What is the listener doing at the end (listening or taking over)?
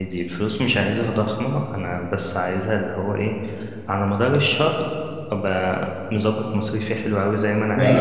taking over